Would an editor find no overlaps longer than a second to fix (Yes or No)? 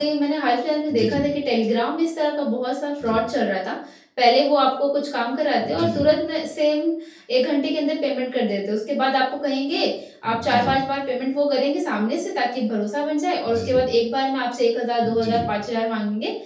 Yes